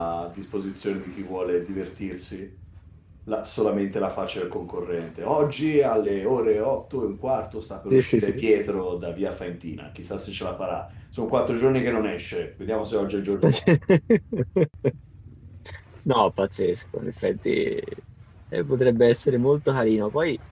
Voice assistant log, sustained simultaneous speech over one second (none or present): none